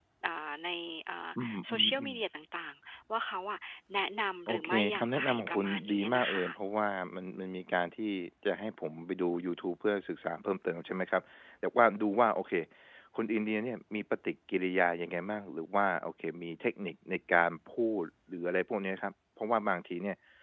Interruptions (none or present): present